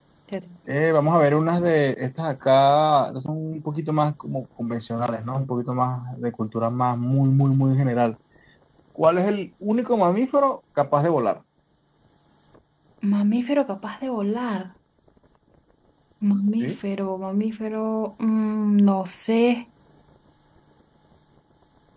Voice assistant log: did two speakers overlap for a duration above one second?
No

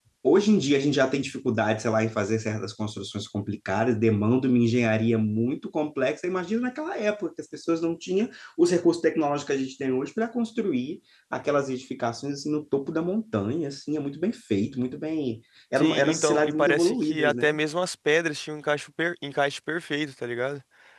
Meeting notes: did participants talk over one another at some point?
Yes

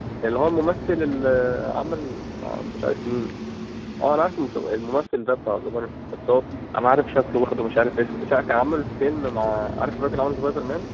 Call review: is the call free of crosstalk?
Yes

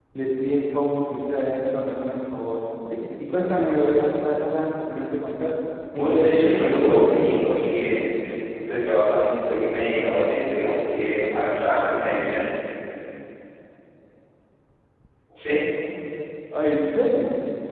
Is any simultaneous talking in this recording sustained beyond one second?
Yes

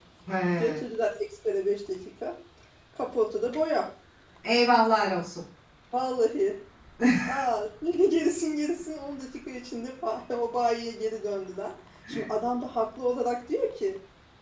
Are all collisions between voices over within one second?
Yes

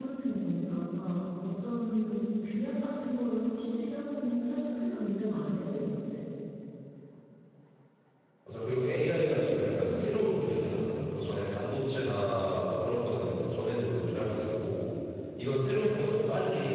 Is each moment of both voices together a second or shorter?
Yes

